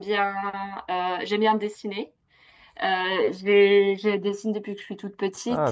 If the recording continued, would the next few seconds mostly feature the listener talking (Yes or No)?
No